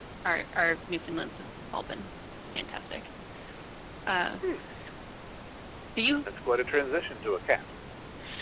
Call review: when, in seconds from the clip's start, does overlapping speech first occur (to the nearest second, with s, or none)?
none